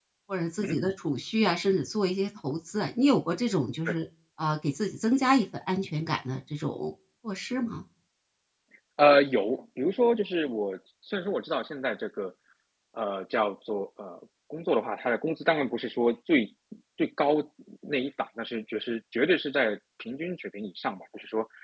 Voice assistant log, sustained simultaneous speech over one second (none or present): none